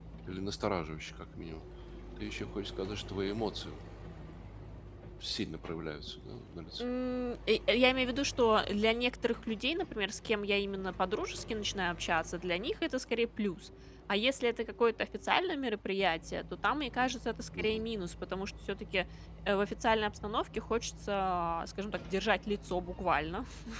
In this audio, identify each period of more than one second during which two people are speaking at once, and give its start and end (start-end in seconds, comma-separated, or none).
none